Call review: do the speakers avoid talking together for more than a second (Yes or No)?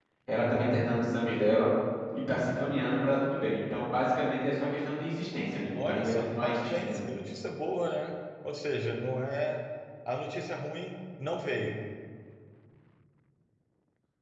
No